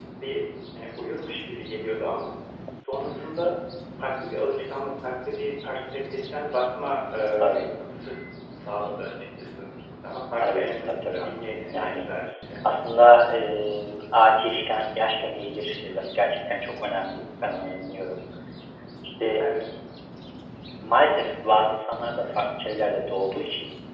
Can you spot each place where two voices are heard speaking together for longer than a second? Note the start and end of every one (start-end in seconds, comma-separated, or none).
10.4-12.1